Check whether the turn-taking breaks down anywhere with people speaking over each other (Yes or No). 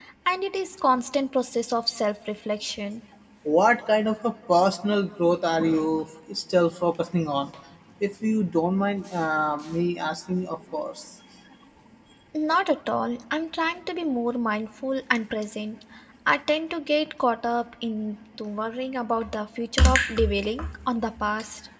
No